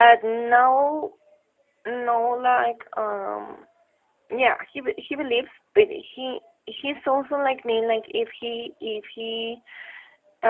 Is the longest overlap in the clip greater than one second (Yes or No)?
No